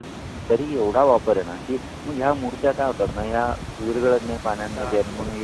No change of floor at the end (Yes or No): Yes